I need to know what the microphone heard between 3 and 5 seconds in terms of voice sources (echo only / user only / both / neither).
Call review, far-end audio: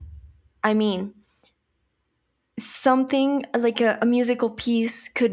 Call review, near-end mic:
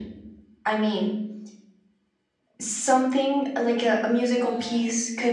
both